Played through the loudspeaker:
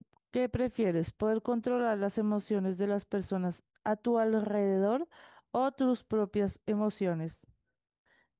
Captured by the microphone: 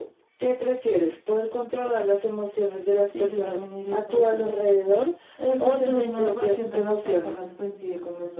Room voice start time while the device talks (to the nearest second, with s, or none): 3 s